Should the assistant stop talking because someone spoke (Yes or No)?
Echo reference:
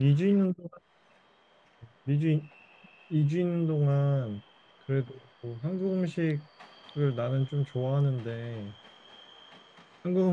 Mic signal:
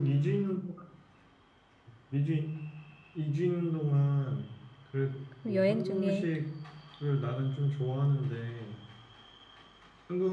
Yes